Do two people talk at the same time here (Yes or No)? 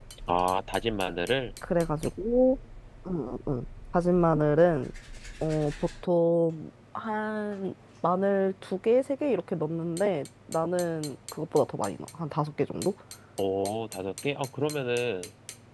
No